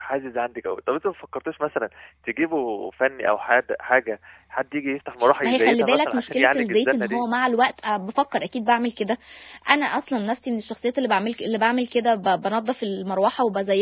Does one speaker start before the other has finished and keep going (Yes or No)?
Yes